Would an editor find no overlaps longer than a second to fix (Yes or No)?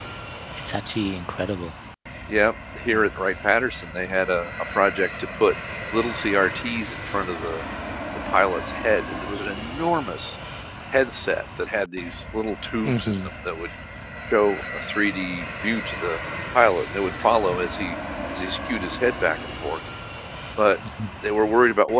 Yes